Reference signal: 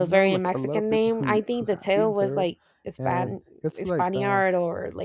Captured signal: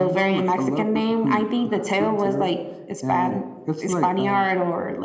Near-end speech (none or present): none